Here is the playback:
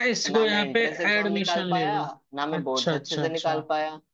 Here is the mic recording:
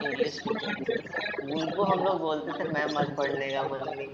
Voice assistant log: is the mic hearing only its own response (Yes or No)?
No